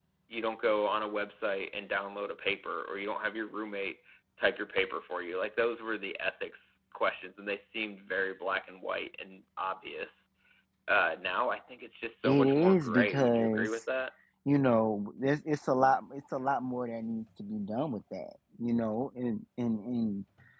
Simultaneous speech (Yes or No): Yes